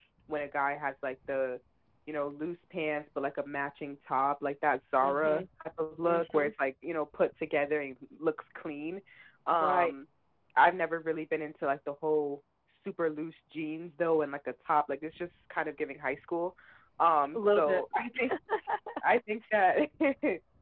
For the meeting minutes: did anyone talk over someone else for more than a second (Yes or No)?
No